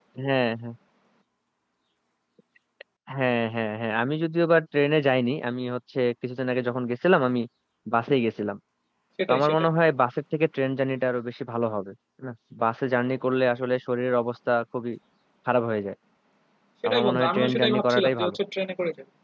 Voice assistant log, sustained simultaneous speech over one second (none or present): present